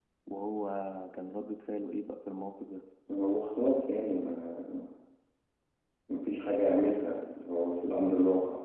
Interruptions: none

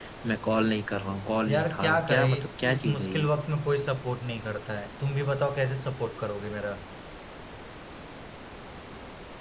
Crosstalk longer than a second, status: present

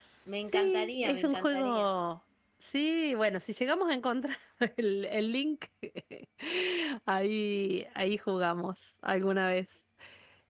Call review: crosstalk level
present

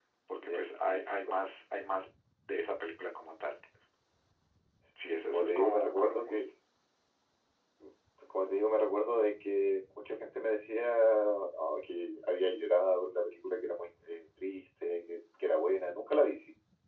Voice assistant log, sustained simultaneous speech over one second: present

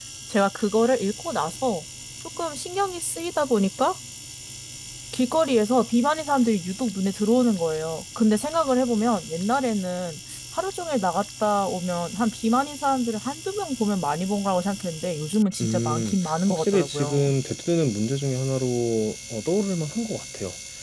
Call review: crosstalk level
present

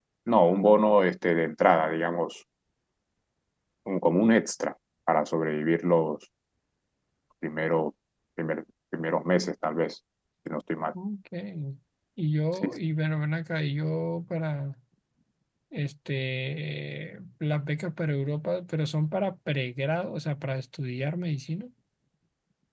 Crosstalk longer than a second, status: none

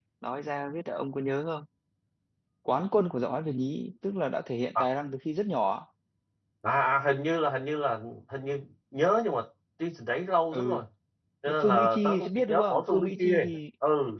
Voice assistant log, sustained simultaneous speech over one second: present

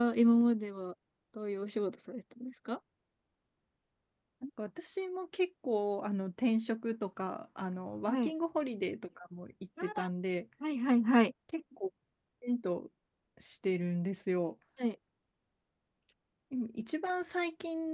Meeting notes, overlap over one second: none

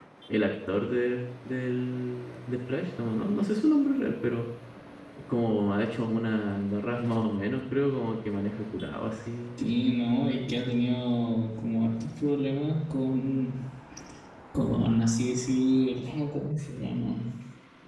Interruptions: none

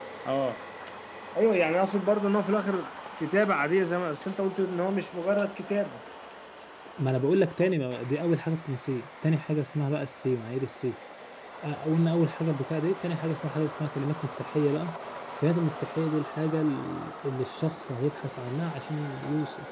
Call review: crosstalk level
none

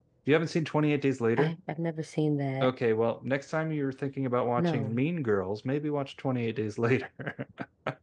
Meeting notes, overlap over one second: none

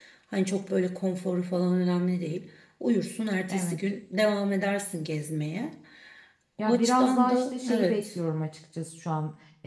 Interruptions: present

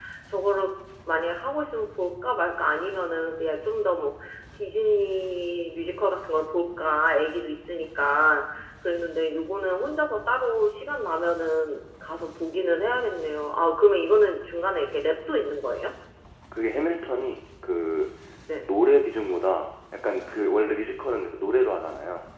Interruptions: none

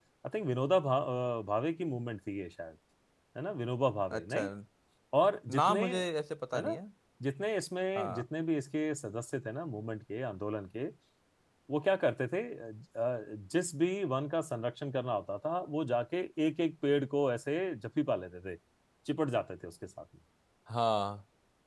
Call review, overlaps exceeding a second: none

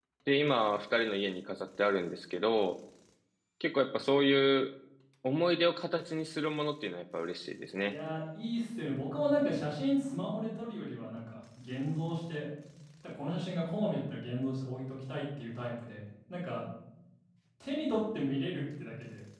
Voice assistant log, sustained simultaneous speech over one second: none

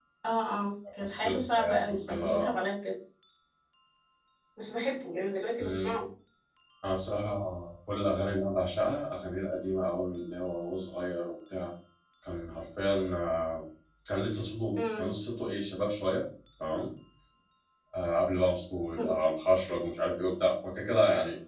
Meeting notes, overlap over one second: present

